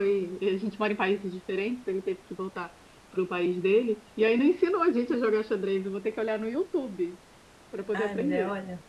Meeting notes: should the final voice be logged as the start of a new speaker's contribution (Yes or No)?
Yes